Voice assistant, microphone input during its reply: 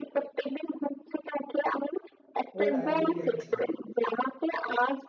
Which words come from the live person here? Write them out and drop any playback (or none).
পুরো ডায়েরিতে লিখে রাখছি